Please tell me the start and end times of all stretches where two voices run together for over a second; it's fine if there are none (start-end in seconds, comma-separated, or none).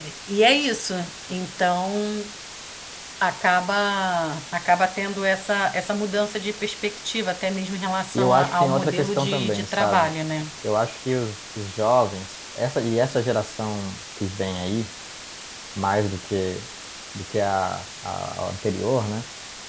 8.1-10.1